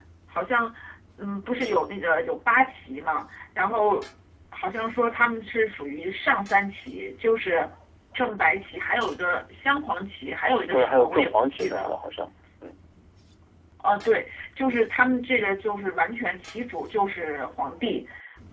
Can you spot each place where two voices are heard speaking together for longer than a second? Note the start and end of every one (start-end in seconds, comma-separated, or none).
10.7-11.9